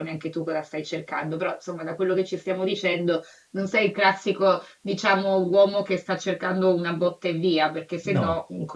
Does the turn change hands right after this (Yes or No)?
No